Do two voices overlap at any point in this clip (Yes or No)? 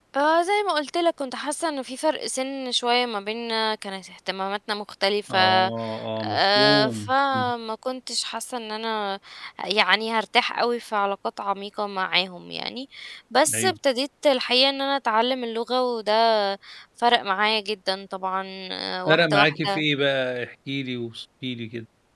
Yes